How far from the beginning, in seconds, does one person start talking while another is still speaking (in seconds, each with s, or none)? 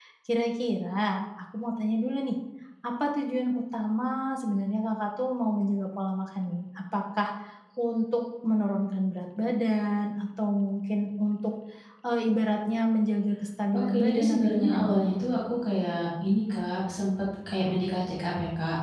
13.7 s